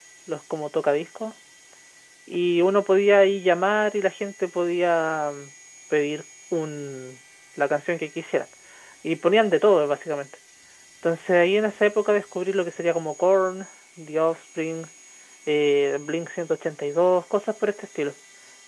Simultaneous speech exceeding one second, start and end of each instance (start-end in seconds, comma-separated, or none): none